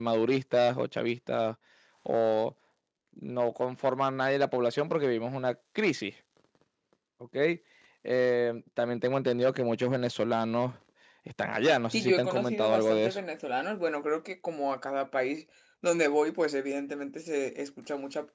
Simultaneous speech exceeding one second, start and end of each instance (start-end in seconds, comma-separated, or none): 11.9-13.2